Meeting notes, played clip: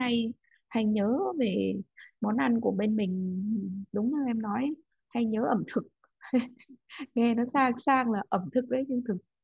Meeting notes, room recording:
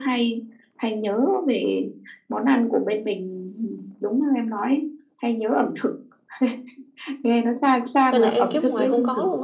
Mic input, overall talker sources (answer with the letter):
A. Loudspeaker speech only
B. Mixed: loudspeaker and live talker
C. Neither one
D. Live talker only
B